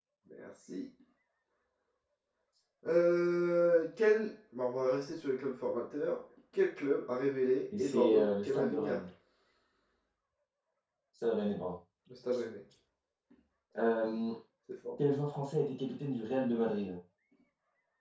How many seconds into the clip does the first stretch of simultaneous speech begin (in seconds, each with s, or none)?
7.7 s